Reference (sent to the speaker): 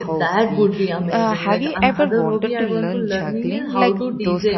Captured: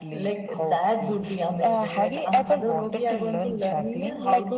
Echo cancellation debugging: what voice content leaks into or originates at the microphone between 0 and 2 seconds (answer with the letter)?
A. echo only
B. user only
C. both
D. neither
A